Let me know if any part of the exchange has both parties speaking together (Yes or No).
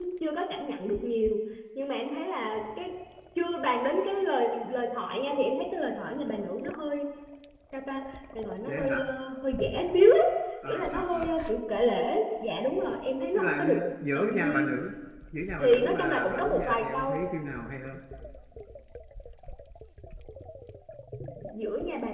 Yes